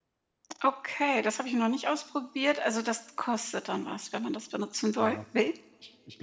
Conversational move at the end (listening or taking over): taking over